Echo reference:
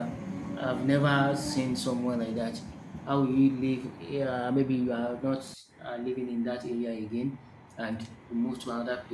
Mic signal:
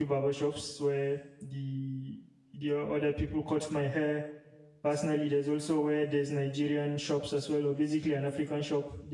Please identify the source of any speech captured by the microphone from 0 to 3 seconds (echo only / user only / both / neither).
user only